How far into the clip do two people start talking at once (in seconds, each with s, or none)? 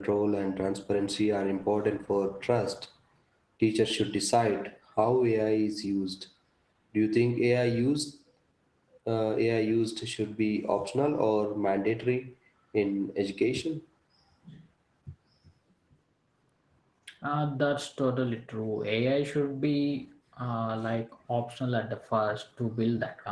none